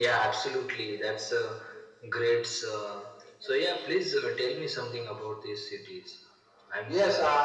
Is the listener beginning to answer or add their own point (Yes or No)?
Yes